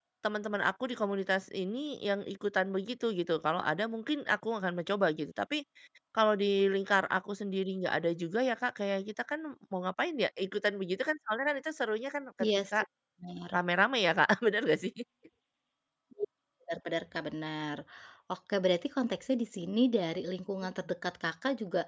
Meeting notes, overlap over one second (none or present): none